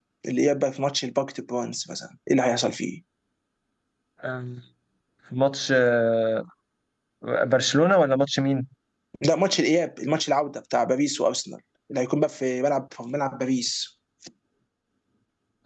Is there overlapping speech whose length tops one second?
No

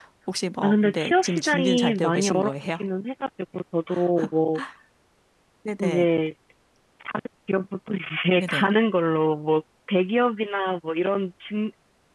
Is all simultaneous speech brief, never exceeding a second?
No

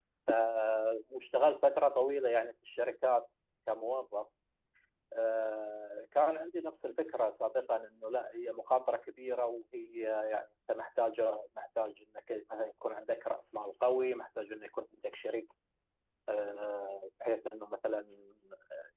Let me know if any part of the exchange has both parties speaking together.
No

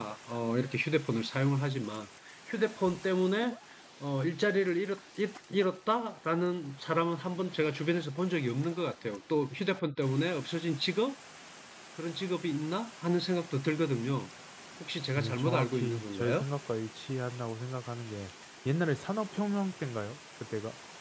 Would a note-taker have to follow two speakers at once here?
Yes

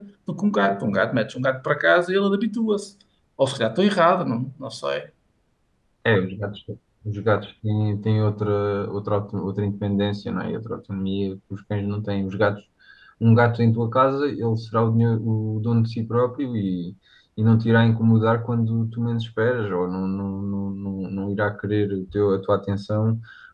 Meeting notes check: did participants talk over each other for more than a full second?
No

